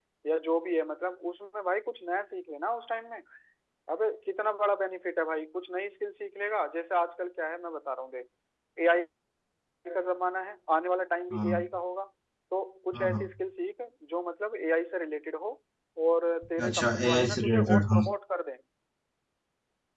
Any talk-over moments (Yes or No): Yes